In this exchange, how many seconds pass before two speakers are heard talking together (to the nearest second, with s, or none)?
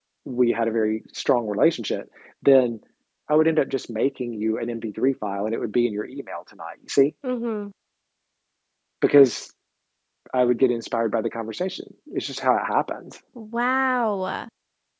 none